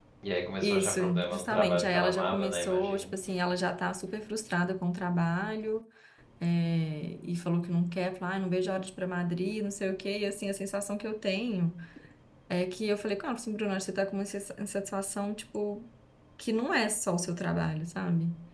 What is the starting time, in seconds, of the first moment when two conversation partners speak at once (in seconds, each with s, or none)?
0.6 s